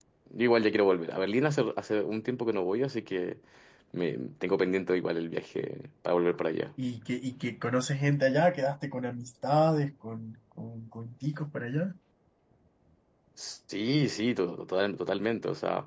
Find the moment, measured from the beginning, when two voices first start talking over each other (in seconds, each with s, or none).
none